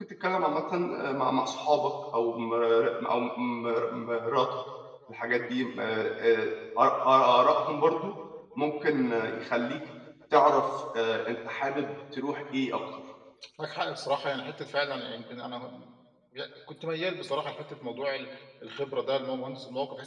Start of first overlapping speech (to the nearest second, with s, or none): none